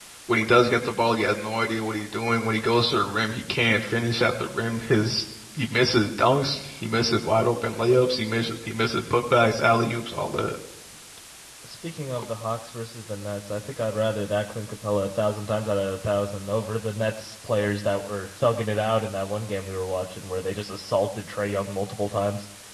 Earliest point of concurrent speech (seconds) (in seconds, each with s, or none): none